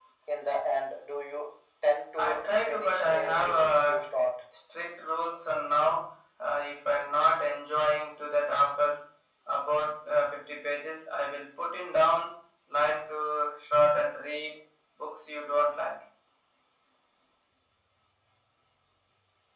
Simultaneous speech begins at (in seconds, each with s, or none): 2.2 s